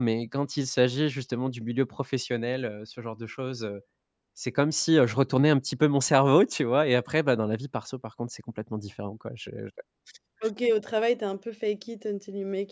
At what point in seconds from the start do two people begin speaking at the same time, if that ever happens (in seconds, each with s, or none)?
none